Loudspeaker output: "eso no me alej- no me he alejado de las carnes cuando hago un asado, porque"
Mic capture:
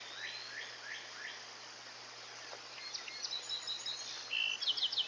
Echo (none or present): none